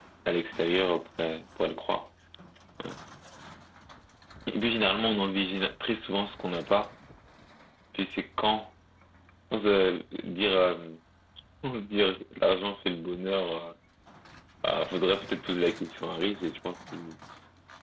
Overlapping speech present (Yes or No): No